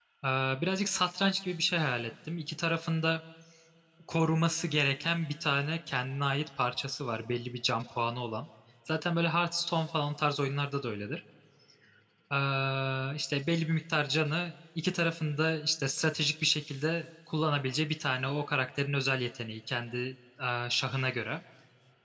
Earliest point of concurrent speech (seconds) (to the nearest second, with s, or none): none